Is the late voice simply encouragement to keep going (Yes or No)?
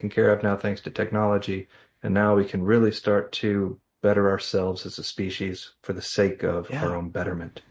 Yes